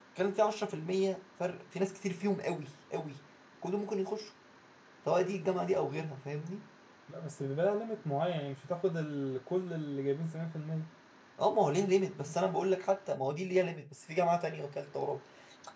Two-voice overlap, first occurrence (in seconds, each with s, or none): none